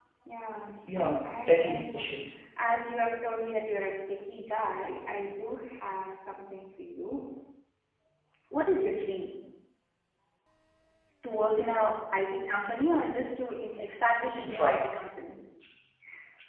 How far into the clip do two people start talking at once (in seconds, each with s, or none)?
0.9 s